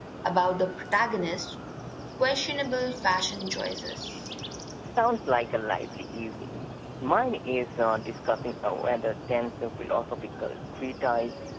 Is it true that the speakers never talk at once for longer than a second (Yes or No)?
Yes